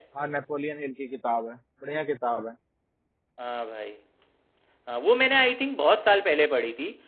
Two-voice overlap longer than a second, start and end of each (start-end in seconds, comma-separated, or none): none